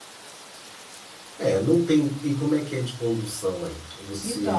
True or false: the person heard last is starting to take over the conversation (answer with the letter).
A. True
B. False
A